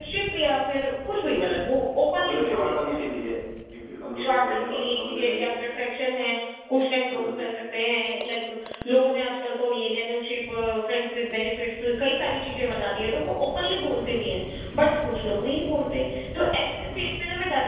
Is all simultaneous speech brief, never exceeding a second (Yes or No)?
No